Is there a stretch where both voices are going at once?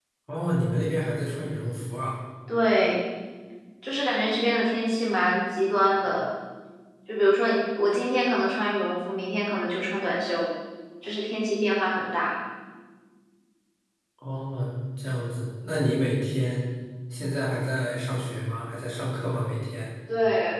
No

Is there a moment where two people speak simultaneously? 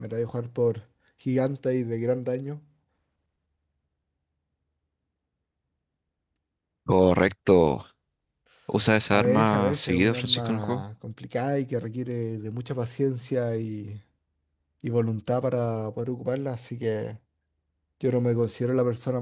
Yes, from 9.1 s

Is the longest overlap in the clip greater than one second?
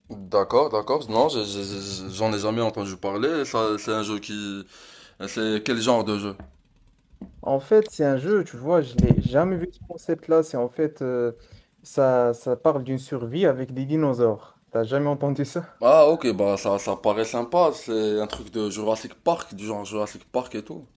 No

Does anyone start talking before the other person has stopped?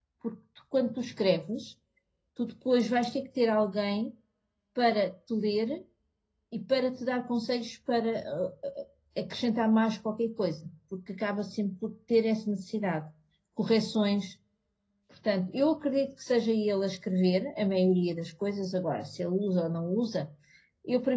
No

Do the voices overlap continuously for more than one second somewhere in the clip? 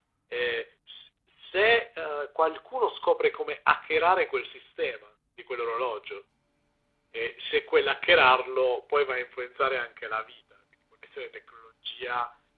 No

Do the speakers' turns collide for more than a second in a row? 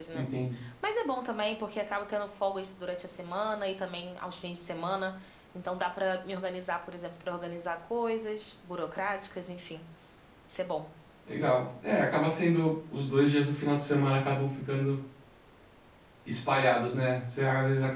No

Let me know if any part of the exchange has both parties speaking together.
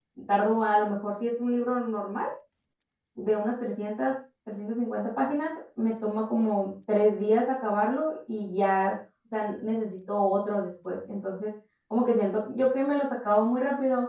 No

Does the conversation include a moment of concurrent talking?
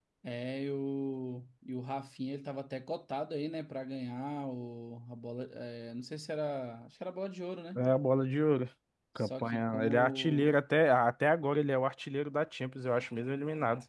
Yes, from 9.2 s

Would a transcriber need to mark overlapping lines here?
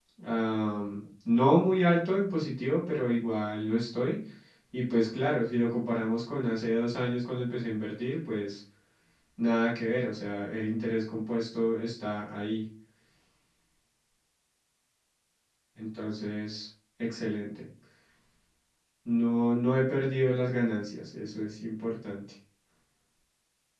No

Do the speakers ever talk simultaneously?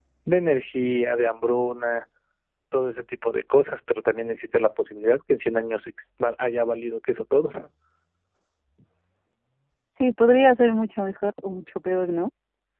No

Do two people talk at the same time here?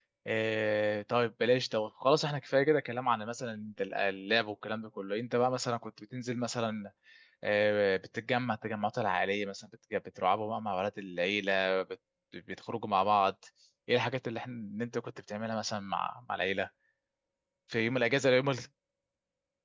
No

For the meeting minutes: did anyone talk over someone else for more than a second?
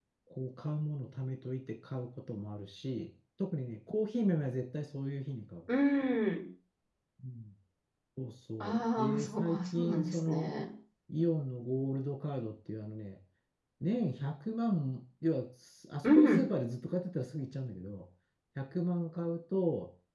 Yes, from 8.6 s

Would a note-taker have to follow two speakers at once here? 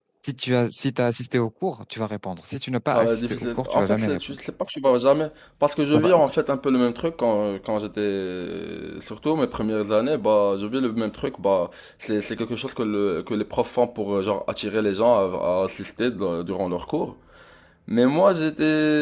Yes, from 2.9 s

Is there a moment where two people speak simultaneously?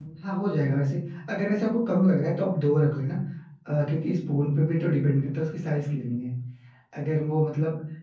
No

